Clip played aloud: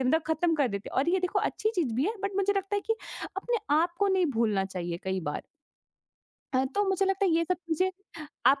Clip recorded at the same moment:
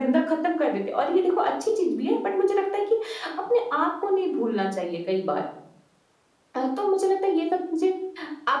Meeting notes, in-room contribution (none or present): none